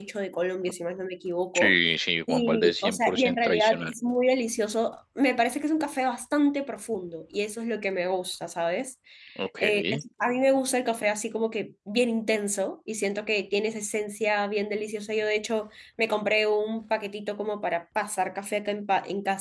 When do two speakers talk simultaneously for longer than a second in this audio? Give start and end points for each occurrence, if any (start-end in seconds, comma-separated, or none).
2.3-3.9